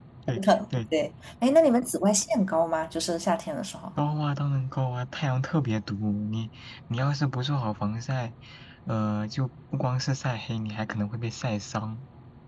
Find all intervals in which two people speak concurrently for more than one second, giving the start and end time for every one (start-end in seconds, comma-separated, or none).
none